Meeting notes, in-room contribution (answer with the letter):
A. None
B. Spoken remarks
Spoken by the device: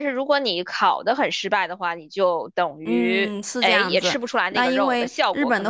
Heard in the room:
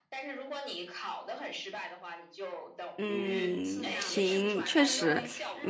B